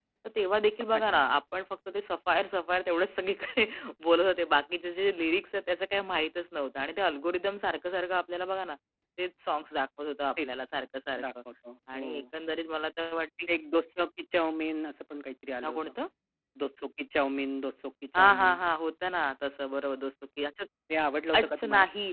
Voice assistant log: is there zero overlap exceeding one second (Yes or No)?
Yes